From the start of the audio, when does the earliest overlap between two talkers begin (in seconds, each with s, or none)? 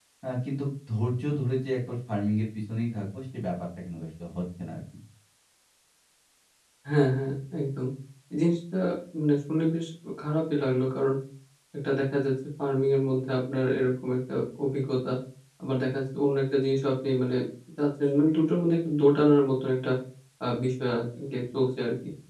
none